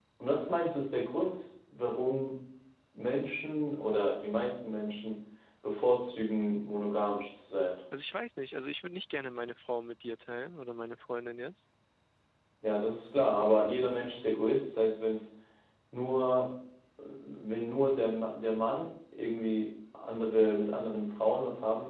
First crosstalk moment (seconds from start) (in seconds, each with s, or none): none